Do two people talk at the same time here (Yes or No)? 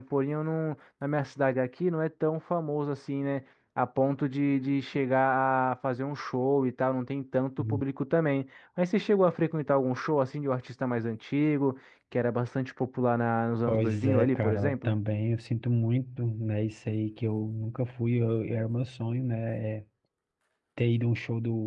Yes